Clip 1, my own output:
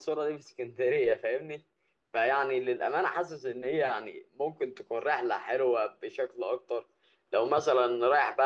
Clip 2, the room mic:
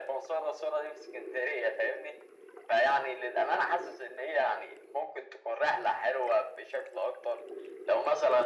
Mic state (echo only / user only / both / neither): echo only